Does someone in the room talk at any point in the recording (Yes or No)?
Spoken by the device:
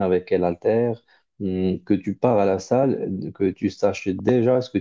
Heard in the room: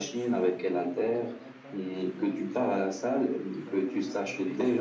Yes